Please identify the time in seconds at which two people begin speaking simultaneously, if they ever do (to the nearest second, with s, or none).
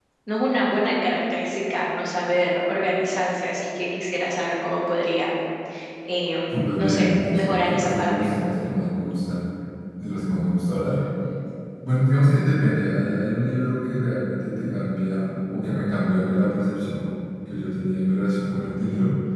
7 s